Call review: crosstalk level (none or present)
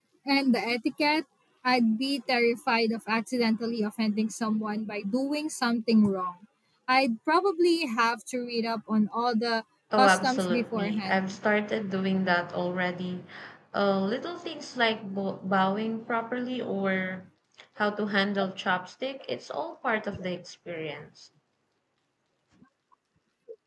present